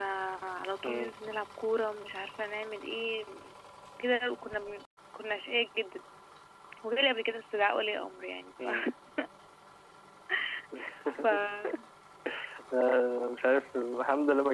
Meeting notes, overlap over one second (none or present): none